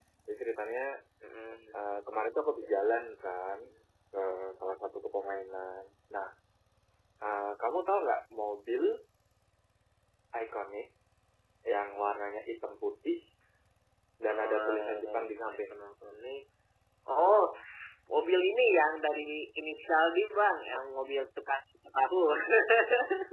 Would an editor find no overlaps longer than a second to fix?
No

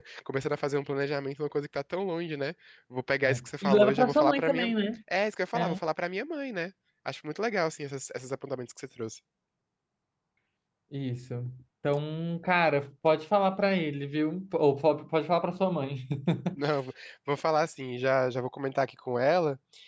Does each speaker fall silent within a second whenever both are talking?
No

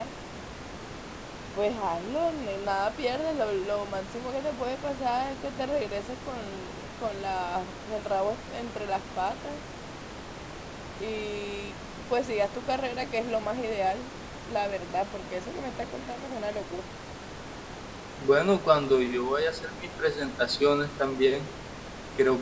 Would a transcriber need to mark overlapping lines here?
No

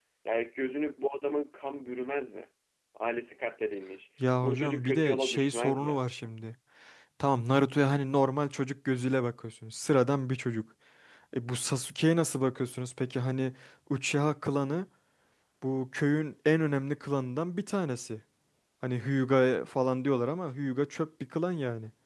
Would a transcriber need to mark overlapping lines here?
Yes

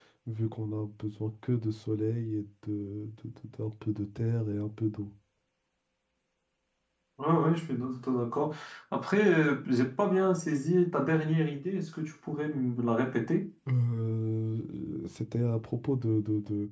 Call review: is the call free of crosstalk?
Yes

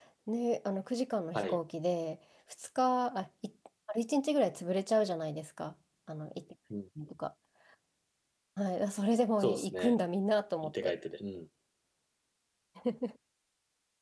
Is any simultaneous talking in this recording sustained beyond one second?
No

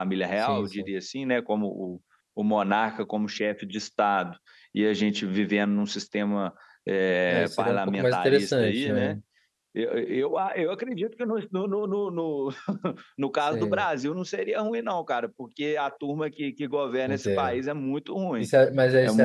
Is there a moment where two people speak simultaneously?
Yes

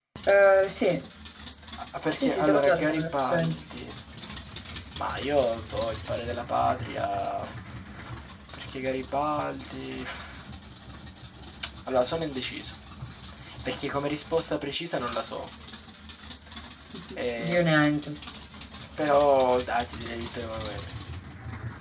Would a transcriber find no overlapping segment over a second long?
No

